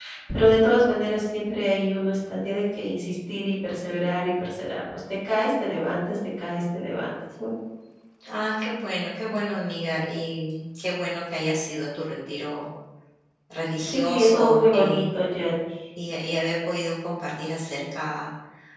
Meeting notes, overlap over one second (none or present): present